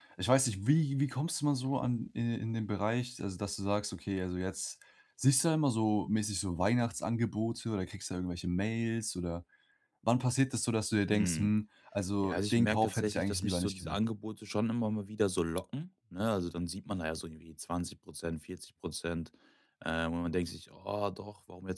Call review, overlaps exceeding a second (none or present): present